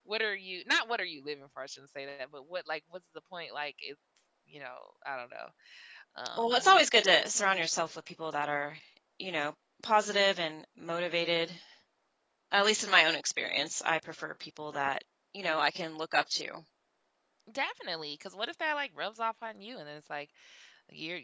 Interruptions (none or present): none